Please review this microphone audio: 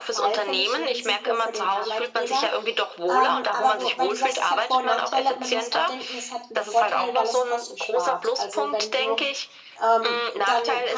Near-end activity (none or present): present